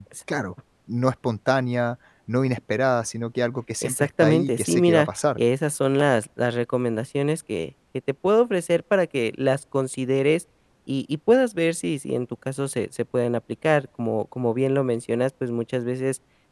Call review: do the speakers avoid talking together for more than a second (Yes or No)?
No